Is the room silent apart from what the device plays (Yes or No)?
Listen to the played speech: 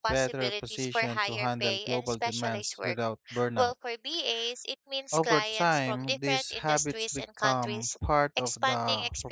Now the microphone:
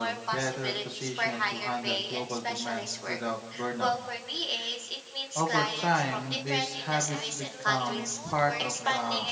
No